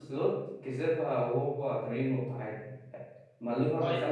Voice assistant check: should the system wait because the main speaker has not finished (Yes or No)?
Yes